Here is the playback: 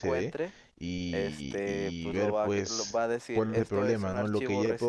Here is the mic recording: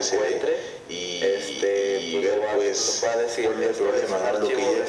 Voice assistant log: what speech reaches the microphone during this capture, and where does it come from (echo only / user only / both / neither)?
echo only